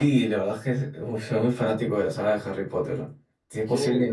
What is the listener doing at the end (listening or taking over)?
taking over